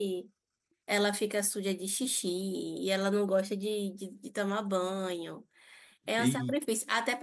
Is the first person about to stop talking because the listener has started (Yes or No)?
No